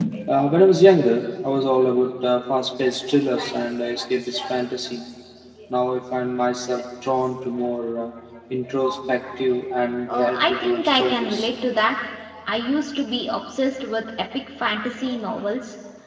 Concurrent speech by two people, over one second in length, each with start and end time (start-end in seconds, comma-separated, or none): 10.1-11.5